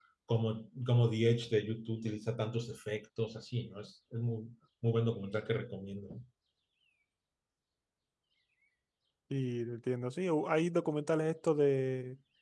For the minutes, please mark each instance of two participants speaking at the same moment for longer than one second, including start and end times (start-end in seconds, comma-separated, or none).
none